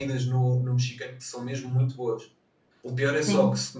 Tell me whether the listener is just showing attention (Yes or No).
Yes